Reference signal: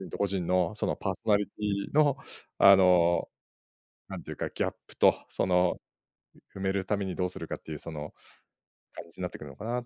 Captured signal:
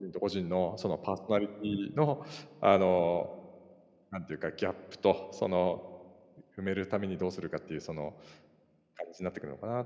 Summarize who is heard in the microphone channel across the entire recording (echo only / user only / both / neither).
echo only